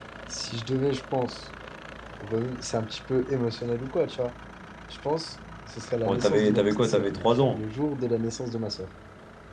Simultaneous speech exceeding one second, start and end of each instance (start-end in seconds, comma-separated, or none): 6.0-7.6